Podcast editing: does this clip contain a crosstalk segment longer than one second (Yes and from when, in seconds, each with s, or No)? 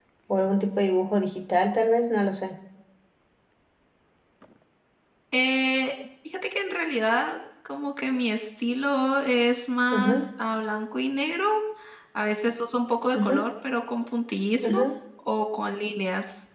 No